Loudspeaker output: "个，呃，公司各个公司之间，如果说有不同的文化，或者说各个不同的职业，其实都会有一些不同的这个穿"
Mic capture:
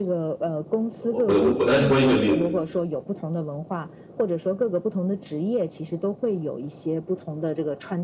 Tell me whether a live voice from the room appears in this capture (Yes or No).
Yes